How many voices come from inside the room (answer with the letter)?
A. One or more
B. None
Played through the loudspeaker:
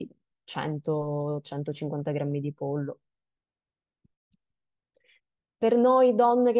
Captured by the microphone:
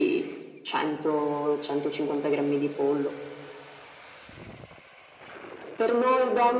B